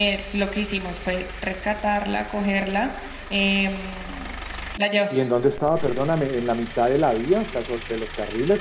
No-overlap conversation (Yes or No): Yes